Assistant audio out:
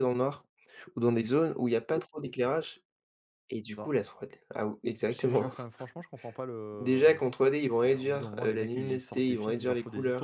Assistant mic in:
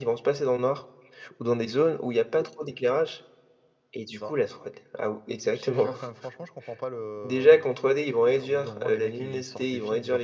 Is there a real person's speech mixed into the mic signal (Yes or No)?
No